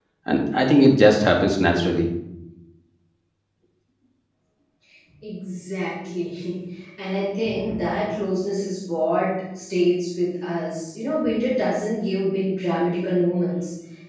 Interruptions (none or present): none